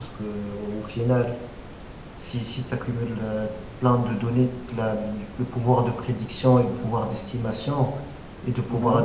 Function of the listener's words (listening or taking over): listening